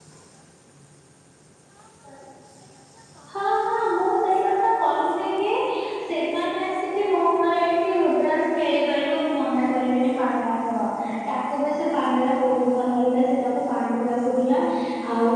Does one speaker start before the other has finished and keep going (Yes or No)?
No